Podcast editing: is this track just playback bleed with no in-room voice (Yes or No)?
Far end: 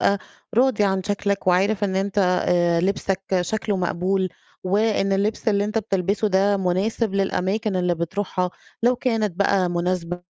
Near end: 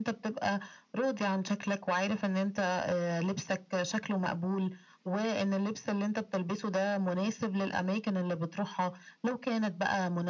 Yes